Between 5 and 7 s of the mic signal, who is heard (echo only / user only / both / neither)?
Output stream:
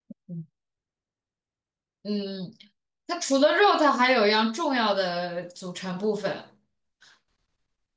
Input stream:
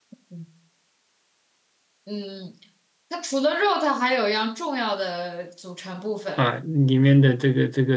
both